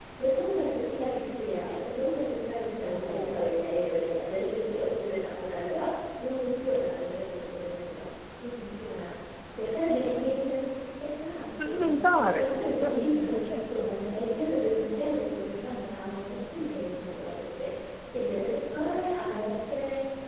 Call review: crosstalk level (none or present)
present